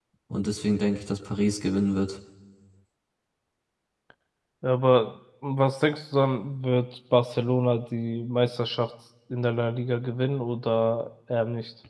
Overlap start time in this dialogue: none

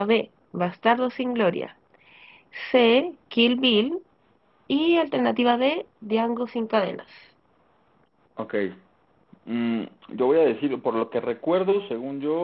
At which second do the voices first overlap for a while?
none

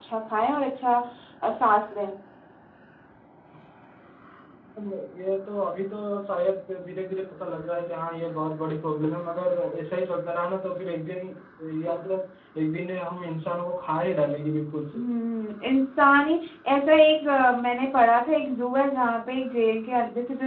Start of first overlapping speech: none

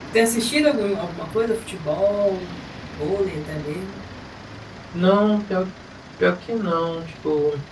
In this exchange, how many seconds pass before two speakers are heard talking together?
none

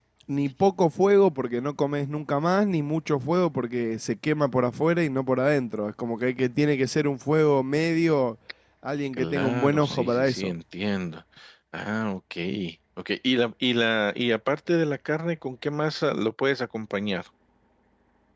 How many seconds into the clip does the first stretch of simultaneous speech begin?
9 s

